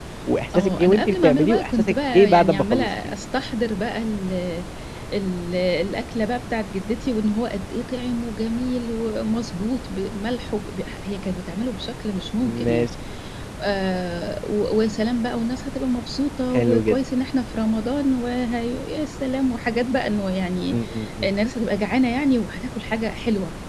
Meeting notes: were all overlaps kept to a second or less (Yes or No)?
No